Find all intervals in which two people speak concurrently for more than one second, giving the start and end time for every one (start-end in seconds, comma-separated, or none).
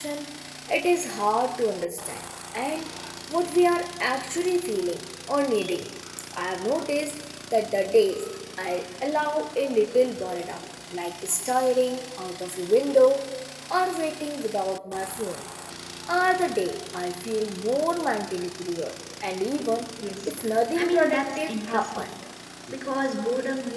20.8-22.0